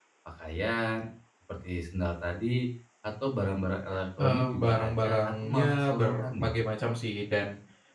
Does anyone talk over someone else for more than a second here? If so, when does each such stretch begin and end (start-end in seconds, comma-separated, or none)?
4.2-6.3